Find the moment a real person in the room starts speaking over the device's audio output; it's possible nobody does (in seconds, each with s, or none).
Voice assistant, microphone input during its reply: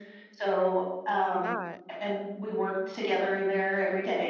1.2 s